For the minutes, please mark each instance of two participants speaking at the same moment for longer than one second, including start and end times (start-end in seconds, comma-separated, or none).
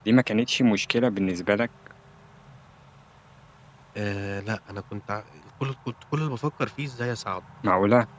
none